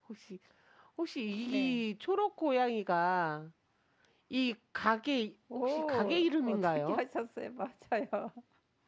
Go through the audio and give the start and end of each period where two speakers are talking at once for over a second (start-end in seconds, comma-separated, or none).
5.5-7.0